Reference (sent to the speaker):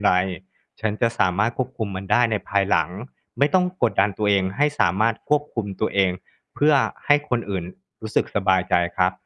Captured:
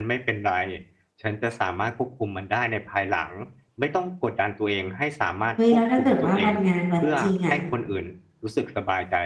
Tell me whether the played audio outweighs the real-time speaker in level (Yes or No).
No